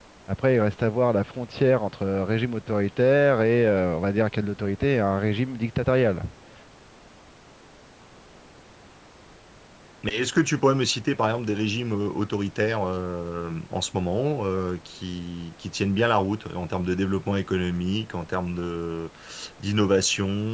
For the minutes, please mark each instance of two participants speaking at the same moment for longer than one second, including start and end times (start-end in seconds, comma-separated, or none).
none